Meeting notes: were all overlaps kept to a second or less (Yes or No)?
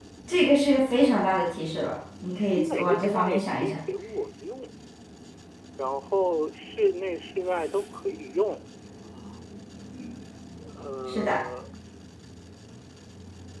No